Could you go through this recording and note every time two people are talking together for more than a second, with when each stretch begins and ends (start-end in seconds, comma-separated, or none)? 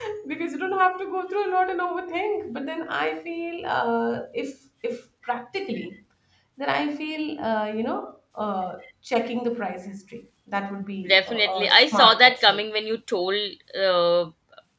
11.1-12.6